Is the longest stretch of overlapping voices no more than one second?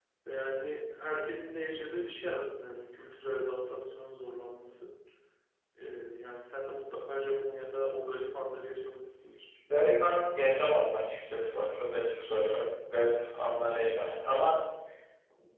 Yes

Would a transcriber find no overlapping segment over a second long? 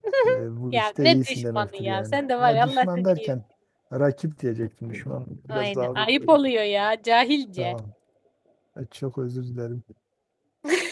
No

